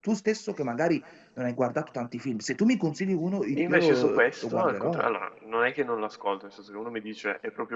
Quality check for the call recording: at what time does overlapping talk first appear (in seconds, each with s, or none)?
3.5 s